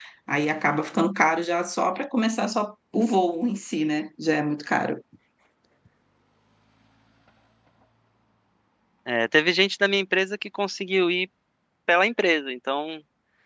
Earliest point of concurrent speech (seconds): none

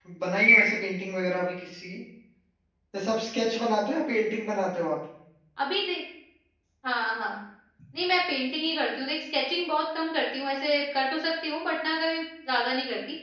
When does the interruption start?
none

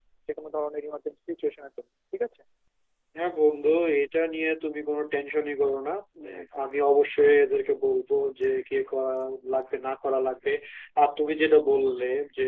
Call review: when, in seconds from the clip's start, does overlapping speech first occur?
none

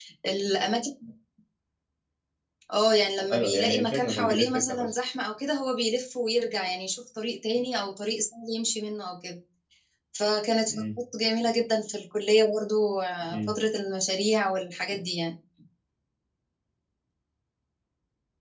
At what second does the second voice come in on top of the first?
3.3 s

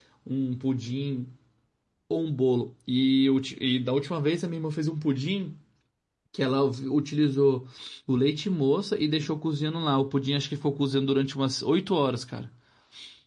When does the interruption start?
none

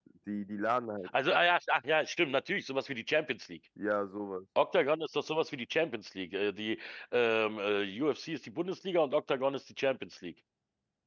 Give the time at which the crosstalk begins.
none

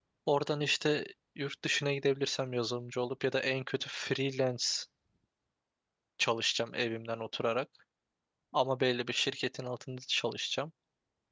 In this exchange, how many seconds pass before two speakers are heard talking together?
none

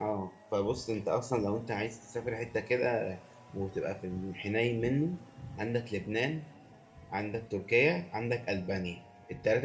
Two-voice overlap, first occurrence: none

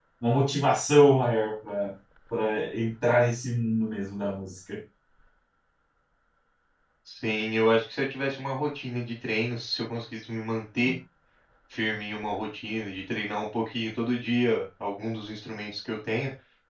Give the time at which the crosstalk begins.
none

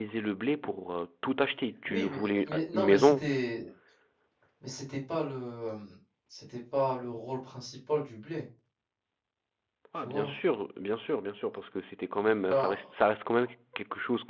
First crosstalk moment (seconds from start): 1.9 s

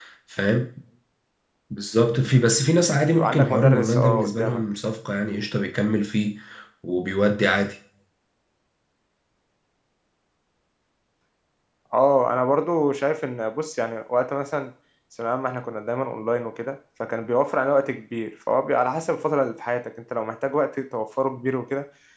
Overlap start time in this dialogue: 3.2 s

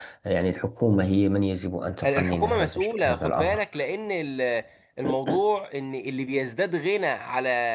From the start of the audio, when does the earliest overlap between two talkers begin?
2.0 s

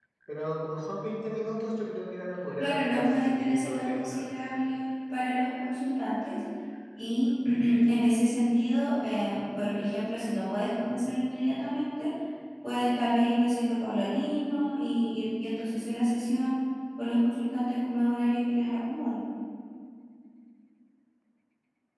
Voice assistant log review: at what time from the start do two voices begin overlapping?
2.6 s

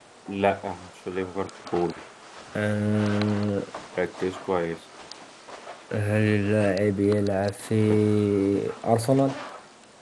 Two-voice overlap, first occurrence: none

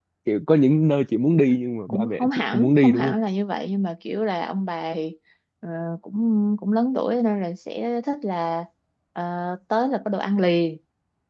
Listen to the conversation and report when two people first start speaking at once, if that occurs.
1.9 s

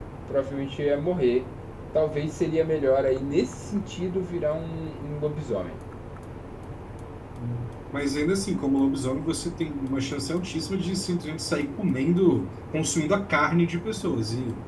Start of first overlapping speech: none

